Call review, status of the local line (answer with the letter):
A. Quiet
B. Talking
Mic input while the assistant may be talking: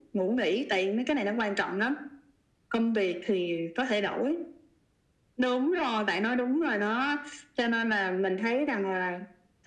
A